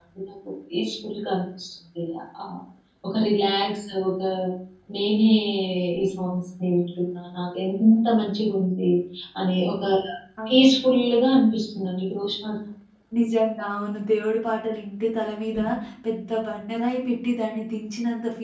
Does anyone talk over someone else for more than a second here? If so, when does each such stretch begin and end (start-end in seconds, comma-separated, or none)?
none